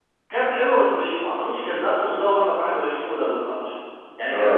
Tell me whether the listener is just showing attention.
Yes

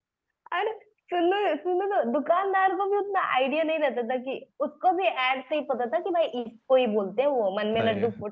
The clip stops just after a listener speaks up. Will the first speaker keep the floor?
Yes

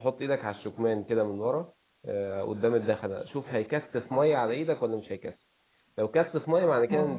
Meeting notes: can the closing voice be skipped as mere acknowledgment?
Yes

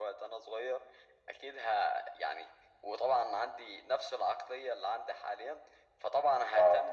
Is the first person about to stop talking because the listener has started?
No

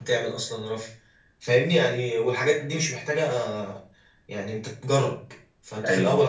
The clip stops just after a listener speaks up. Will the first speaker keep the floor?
Yes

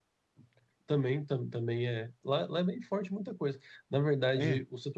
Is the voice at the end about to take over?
No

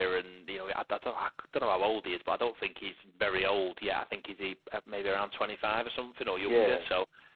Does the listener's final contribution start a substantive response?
No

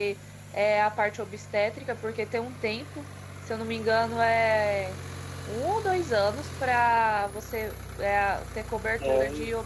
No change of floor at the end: Yes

